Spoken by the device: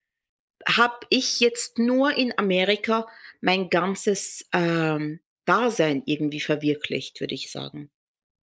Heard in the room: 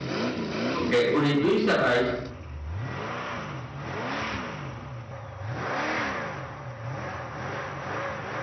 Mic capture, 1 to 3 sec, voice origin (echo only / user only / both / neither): user only